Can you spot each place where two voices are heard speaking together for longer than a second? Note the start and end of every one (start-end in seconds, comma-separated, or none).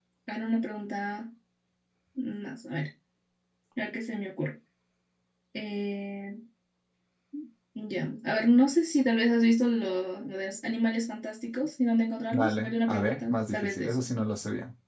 12.3-14.0